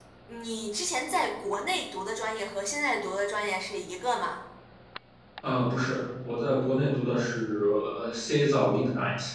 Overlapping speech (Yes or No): No